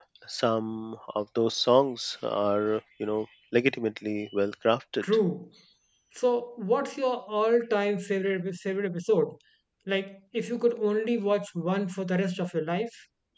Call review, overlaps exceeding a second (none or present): none